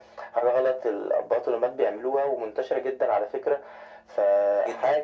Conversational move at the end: listening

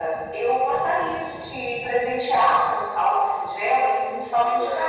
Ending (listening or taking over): taking over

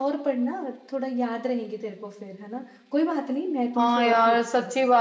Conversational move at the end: taking over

